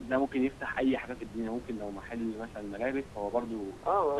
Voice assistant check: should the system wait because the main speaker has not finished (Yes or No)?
No